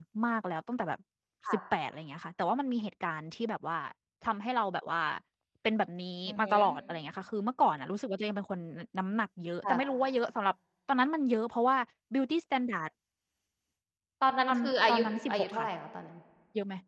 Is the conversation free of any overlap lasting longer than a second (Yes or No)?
No